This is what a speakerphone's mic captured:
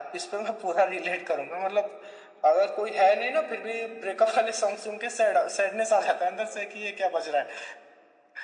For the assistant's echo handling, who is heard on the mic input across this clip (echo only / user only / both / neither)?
echo only